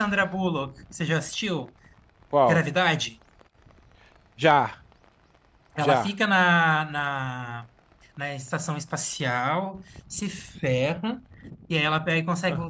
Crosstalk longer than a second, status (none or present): none